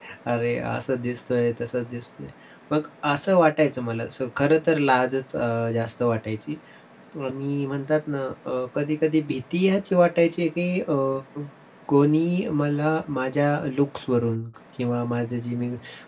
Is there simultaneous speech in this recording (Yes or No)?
No